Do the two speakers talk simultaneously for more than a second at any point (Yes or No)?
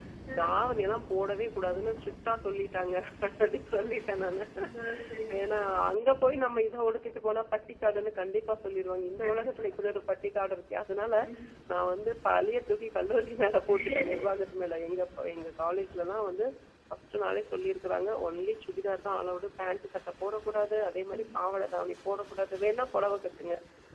No